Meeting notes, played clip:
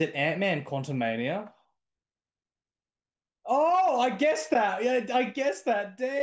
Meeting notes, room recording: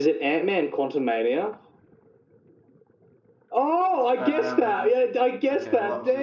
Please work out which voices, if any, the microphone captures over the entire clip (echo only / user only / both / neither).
both